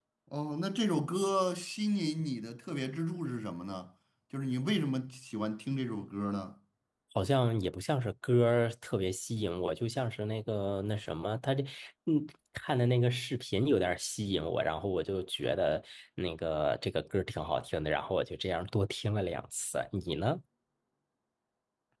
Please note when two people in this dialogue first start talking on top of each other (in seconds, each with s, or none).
none